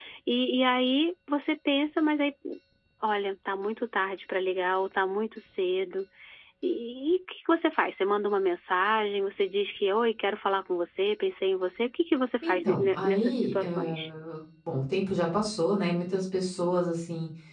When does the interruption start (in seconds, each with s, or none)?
12.4 s